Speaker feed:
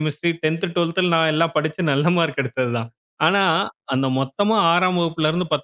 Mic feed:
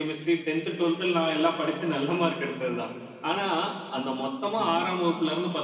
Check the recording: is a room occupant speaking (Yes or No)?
No